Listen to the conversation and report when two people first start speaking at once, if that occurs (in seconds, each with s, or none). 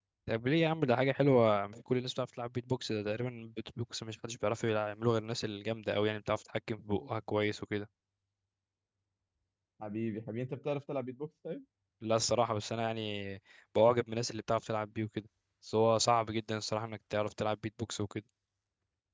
none